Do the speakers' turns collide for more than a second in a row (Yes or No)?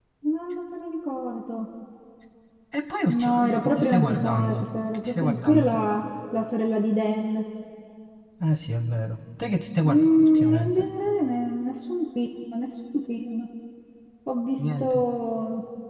Yes